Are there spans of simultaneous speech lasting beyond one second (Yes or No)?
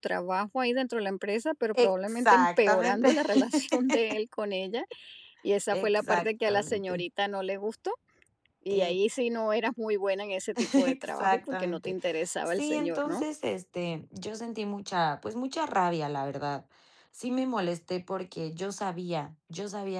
Yes